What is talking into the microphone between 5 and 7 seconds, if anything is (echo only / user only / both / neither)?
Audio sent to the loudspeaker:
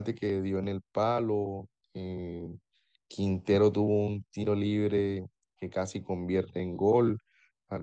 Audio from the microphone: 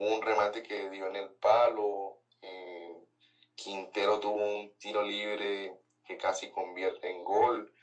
echo only